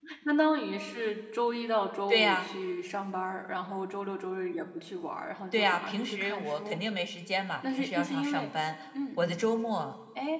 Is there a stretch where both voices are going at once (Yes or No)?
Yes